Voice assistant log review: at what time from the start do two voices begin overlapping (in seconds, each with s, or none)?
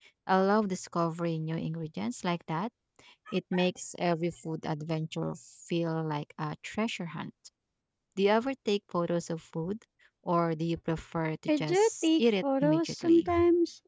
11.5 s